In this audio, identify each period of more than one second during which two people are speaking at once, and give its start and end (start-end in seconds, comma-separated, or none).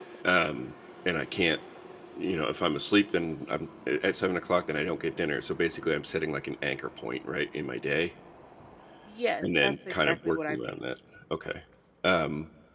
9.4-10.7